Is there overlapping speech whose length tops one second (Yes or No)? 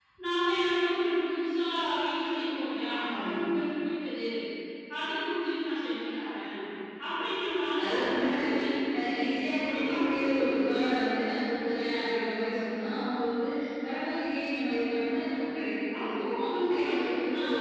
Yes